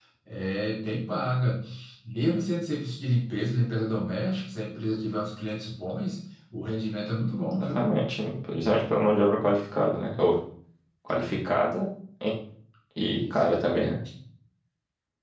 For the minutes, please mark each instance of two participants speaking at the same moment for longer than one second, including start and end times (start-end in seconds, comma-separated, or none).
none